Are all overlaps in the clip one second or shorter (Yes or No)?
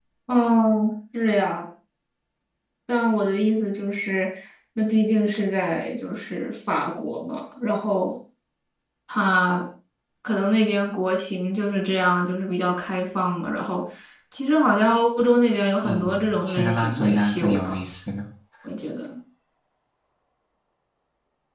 No